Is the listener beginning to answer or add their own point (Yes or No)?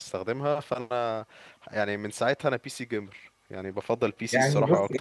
Yes